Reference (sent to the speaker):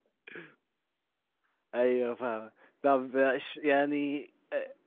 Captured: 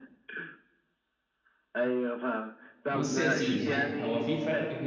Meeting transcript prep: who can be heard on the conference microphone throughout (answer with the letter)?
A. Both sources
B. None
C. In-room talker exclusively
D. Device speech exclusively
A